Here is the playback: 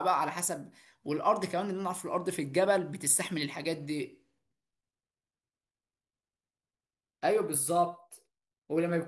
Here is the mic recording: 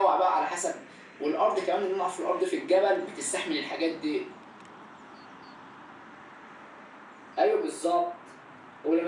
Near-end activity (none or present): none